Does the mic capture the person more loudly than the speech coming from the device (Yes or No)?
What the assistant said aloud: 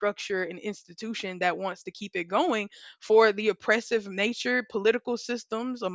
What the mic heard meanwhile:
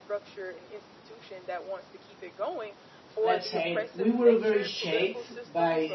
Yes